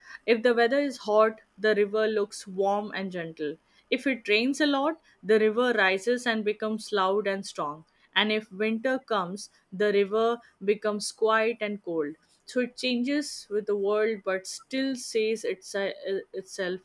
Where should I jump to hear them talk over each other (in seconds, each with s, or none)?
none